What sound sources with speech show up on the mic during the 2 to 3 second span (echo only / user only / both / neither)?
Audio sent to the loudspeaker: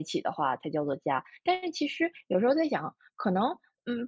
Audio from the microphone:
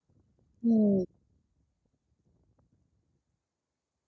neither